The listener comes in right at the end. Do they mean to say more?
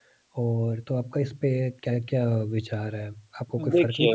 No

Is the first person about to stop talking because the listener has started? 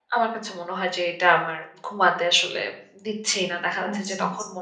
No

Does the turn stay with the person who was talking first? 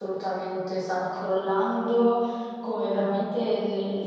Yes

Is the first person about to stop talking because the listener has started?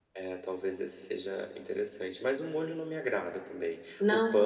No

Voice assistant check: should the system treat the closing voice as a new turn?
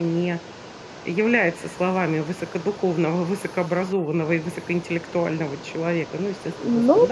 Yes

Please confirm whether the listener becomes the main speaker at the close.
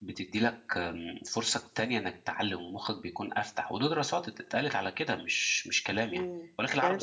Yes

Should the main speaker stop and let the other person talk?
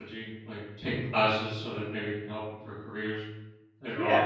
Yes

